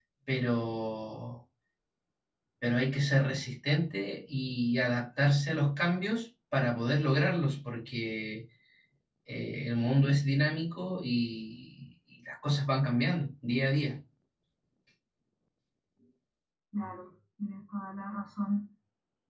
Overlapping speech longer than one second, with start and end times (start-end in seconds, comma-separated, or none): none